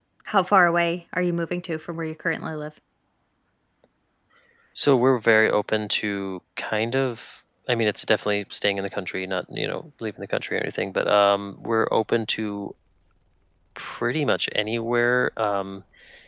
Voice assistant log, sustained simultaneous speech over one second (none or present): none